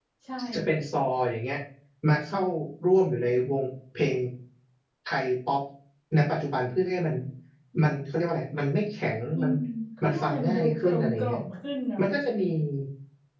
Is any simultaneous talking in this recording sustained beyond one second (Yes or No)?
Yes